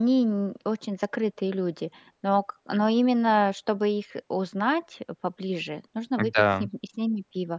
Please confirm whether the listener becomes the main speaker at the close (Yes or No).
No